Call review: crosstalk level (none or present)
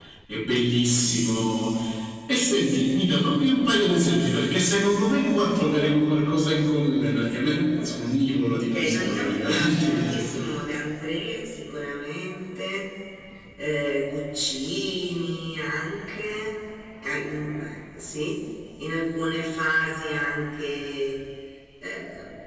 present